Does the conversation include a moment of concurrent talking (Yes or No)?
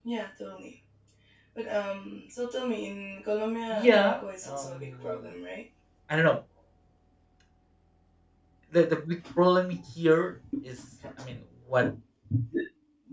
Yes